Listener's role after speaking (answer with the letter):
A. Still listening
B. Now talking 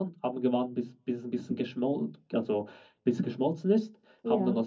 A